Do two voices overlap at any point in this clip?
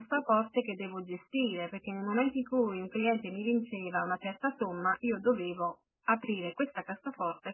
No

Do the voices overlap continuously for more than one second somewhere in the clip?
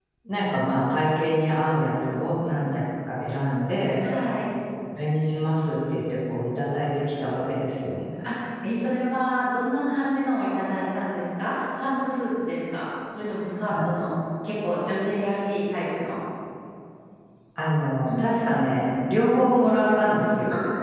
No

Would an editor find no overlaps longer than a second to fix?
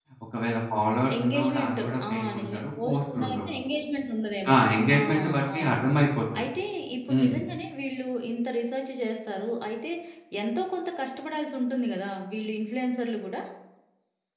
No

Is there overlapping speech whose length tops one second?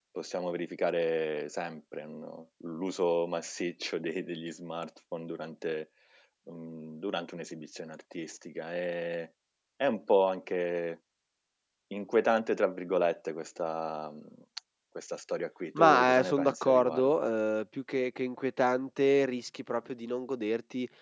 Yes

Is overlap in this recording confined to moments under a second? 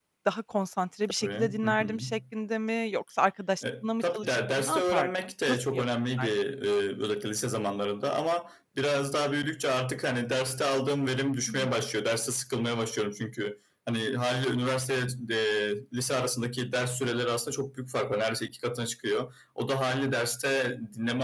No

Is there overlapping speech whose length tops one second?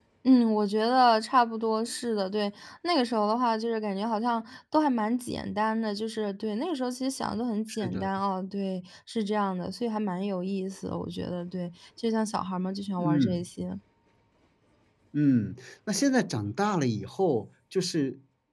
No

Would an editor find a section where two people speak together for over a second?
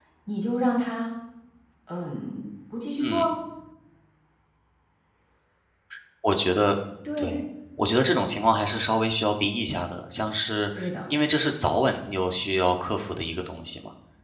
No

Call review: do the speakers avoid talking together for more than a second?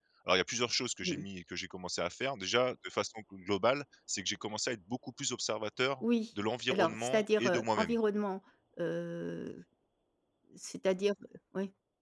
No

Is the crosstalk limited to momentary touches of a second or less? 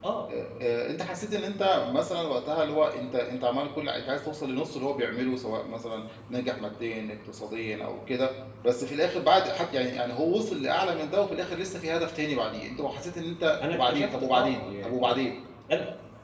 No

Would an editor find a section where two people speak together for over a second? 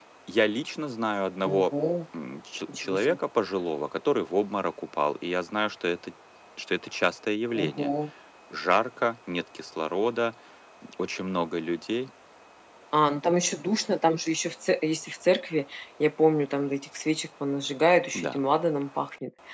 No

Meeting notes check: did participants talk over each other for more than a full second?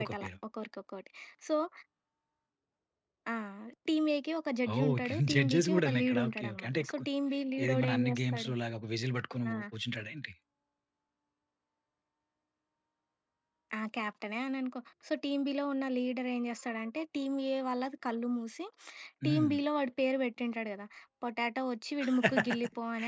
Yes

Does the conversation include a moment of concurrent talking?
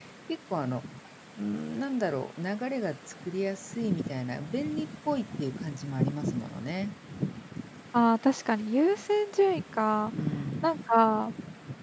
No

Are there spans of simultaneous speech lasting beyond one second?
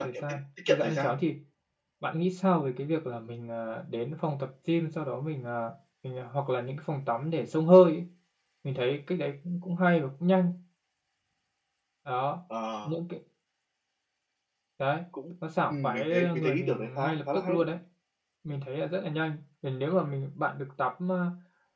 Yes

